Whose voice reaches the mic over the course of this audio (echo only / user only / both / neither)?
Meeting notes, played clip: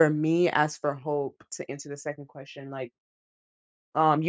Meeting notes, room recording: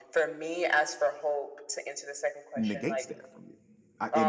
both